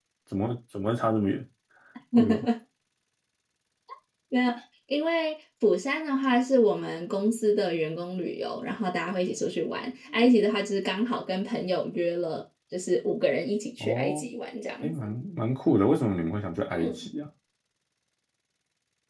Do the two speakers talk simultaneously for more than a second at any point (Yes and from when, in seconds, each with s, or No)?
No